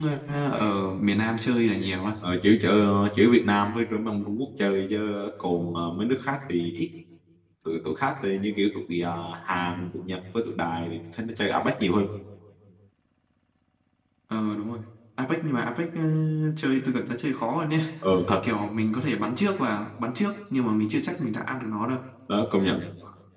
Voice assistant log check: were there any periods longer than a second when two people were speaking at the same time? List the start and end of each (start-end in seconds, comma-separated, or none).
none